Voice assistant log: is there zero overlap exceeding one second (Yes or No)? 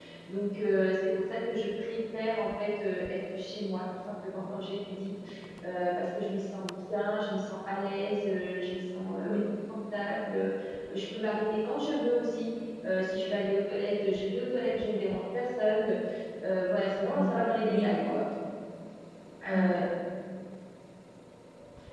Yes